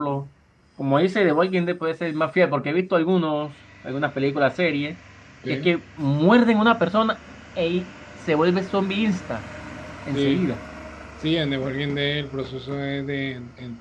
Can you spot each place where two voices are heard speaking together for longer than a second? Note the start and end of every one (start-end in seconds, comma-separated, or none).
none